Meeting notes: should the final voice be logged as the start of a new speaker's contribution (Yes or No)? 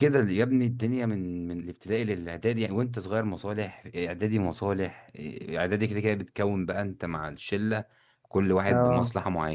No